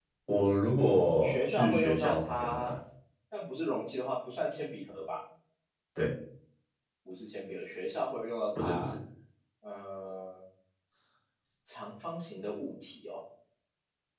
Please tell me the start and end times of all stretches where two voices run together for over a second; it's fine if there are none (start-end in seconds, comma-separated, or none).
1.2-2.7